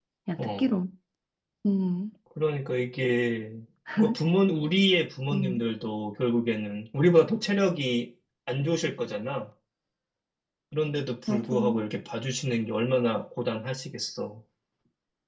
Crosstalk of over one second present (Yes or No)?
No